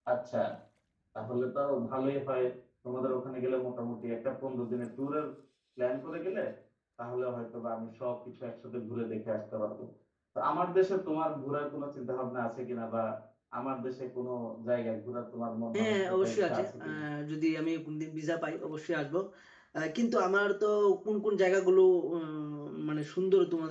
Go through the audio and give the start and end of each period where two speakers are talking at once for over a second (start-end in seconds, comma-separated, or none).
15.7-17.0